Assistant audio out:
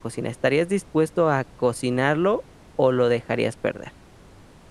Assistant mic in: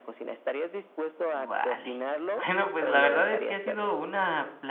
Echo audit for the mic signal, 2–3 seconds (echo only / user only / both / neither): both